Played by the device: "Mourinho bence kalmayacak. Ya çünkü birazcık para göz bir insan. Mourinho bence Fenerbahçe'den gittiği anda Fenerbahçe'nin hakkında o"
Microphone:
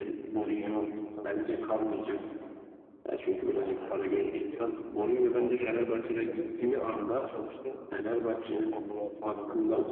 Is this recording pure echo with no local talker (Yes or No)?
No